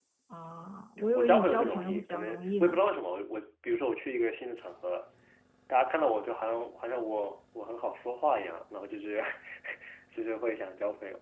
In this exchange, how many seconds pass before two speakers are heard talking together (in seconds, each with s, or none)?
1.1 s